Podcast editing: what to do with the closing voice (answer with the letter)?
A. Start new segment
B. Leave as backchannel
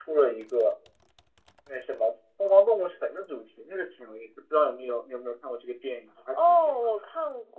A